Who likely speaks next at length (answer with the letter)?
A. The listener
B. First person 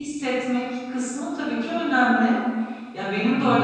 B